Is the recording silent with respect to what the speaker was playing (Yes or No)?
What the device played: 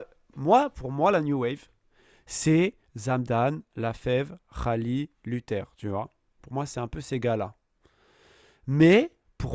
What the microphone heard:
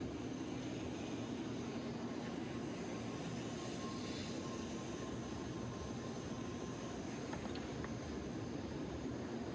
Yes